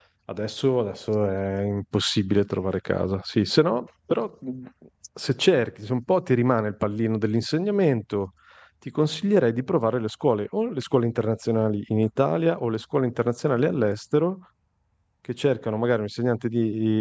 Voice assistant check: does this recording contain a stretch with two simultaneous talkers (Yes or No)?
No